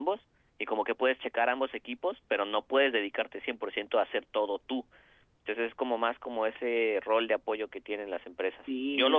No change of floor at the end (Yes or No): No